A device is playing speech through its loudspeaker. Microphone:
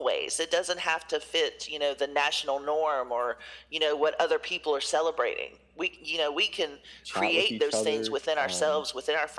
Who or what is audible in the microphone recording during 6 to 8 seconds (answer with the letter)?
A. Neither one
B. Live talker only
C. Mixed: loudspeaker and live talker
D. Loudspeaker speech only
C